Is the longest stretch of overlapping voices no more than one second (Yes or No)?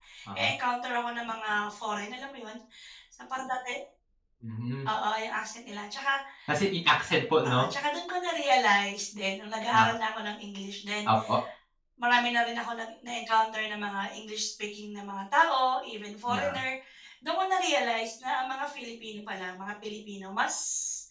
Yes